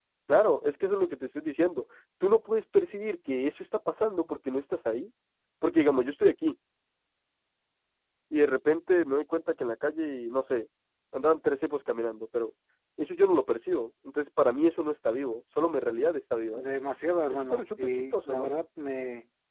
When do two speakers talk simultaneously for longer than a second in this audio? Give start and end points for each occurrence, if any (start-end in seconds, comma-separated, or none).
17.3-18.5